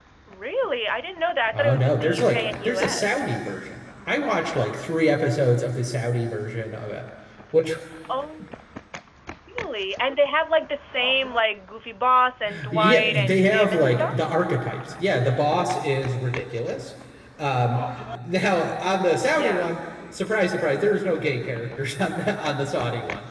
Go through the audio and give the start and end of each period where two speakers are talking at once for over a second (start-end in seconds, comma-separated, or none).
1.5-3.3, 12.7-14.2